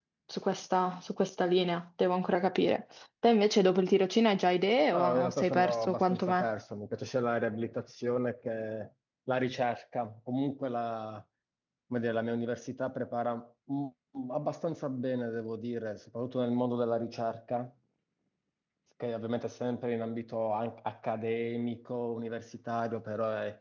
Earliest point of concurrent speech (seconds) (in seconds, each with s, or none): 4.9 s